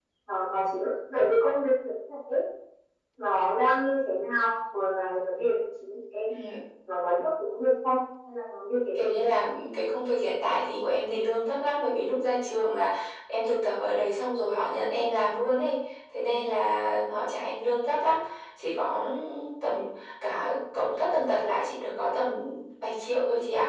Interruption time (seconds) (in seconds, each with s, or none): none